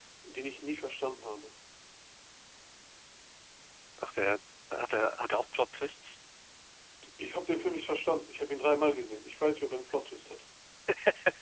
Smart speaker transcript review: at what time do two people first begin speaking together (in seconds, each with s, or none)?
none